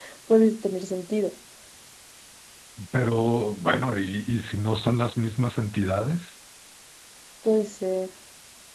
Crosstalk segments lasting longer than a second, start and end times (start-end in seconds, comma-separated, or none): none